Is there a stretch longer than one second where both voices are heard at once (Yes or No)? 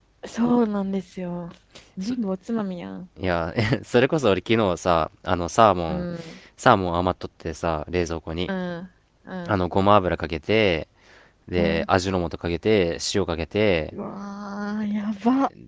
No